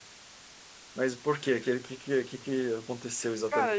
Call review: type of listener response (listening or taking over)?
taking over